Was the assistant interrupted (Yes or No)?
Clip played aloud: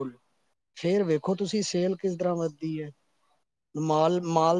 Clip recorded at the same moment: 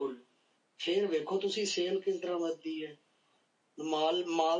No